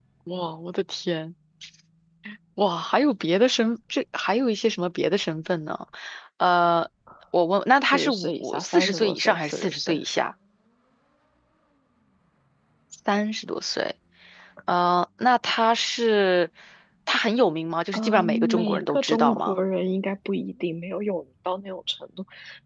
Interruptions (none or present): present